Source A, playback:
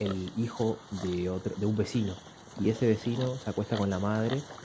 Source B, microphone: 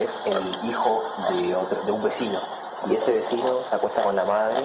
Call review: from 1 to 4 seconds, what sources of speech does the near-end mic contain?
echo only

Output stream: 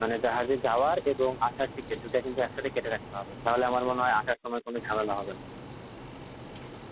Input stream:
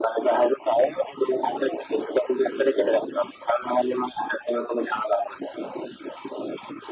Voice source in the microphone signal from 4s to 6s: echo only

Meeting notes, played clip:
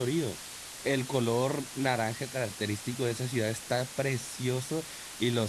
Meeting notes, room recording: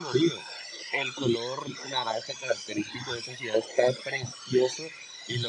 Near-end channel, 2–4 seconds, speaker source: echo only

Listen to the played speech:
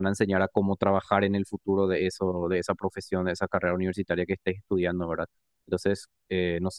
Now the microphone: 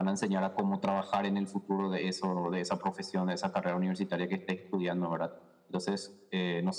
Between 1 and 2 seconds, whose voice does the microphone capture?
echo only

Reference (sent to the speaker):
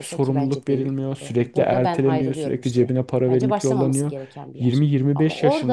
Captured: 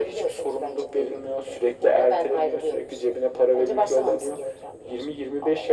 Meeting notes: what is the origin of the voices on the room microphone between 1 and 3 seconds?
echo only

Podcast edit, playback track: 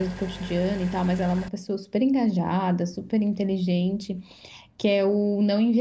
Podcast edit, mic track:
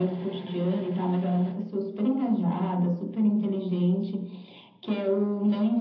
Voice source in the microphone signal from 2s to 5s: echo only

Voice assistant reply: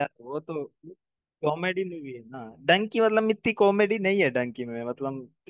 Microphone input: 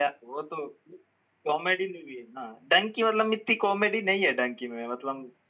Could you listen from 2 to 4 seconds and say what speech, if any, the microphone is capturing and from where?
echo only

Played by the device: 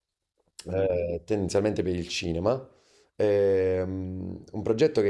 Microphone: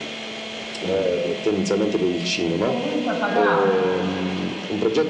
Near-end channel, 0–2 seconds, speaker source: echo only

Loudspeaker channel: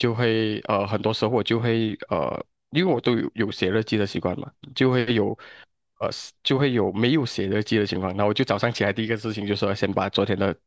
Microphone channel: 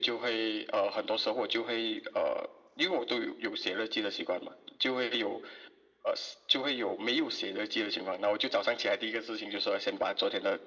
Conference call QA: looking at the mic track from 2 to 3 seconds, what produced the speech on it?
echo only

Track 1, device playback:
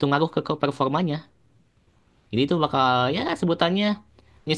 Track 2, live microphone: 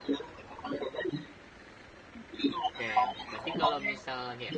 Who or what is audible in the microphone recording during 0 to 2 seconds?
echo only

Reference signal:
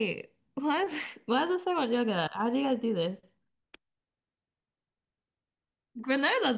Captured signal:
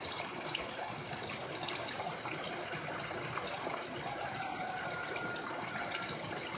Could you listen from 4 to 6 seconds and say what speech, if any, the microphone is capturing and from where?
neither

